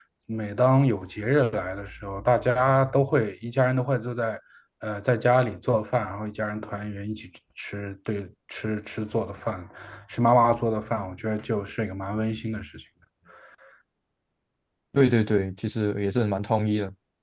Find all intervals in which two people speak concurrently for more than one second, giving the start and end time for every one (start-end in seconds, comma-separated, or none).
none